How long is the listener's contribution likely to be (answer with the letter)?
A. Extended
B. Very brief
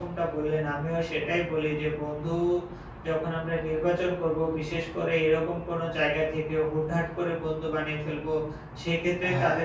B